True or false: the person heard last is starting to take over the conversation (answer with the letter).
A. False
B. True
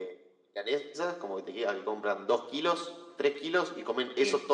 A